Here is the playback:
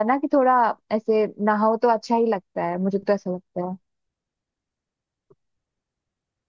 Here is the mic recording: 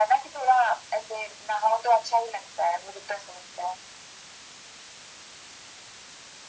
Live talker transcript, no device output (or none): none